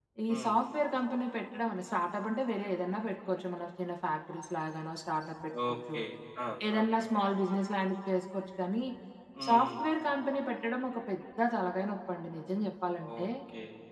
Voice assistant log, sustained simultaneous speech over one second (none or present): none